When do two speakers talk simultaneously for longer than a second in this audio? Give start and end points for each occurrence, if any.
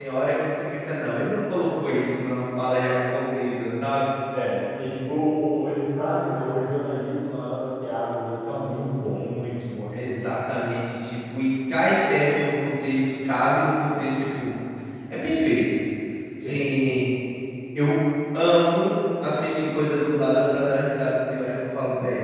none

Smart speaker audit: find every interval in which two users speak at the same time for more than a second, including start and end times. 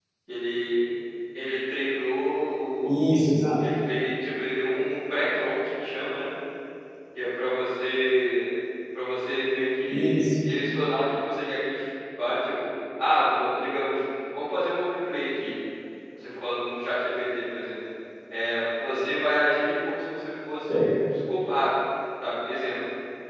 none

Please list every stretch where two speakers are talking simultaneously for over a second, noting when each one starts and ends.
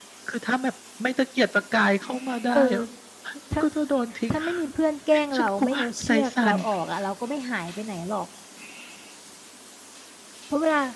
5.3-6.6

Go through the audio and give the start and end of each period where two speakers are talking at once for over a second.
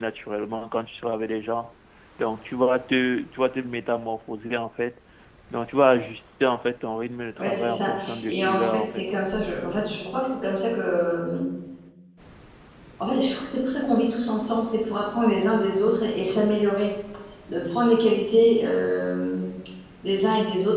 7.4-9.0

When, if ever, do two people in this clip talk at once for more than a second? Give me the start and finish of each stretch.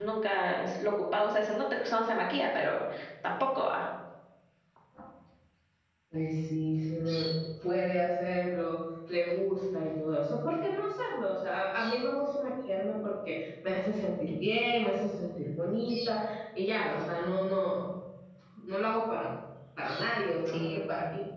none

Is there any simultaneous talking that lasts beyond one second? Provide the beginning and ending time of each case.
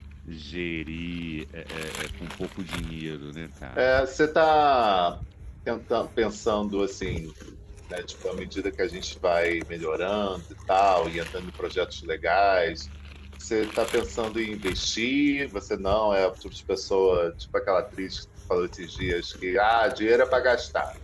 none

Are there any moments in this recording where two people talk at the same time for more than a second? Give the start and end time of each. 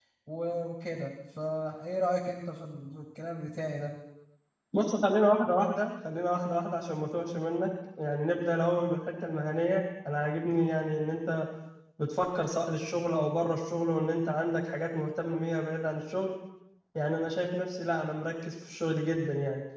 none

